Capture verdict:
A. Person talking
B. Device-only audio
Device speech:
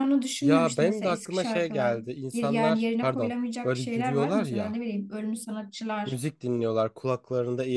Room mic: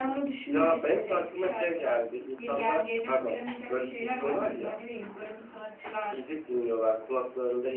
B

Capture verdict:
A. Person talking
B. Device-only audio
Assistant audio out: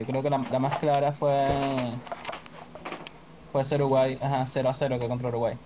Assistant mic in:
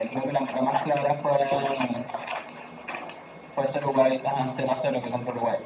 B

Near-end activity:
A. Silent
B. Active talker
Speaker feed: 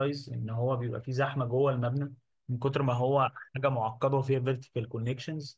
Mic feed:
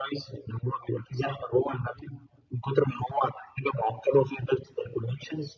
A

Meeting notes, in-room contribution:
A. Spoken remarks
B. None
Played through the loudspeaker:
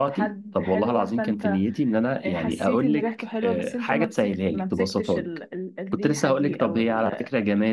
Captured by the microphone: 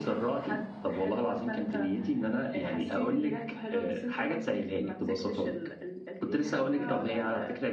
A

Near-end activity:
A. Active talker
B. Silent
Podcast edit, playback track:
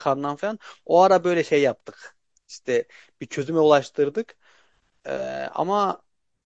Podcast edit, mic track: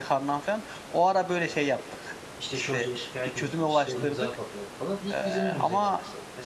A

